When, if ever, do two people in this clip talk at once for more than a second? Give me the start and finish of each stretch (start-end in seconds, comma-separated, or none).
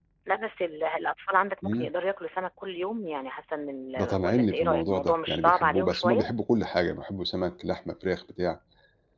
4.0-6.2